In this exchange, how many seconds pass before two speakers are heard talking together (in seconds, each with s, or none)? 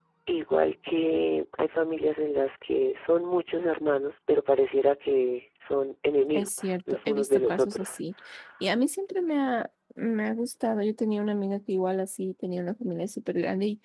6.3 s